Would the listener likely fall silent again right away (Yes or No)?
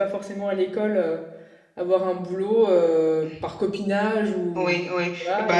No